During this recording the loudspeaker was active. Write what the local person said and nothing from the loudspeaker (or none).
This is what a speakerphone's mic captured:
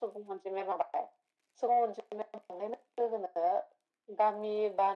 none